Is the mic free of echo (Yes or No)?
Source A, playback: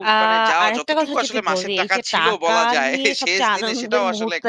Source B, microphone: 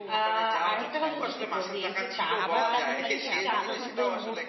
No